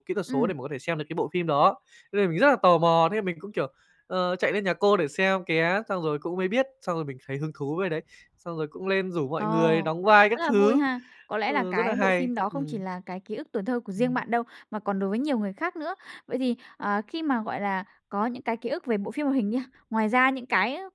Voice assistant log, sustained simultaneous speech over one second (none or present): present